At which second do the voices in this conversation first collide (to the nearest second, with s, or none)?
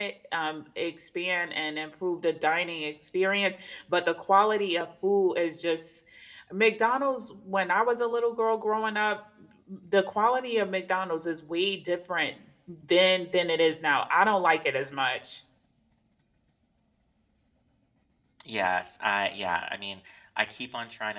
none